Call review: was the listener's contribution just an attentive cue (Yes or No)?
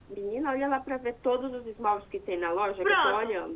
No